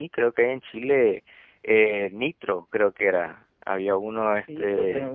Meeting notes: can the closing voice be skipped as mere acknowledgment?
No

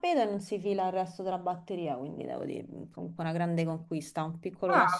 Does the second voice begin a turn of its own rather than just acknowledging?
Yes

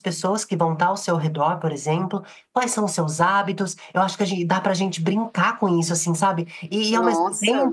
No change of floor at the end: Yes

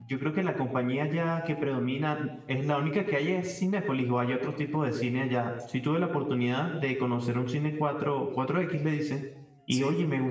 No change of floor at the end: Yes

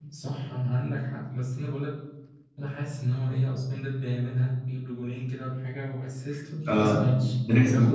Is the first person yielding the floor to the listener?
Yes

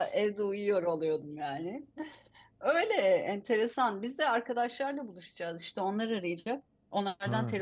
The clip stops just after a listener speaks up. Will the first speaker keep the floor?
Yes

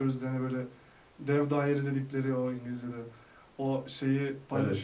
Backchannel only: Yes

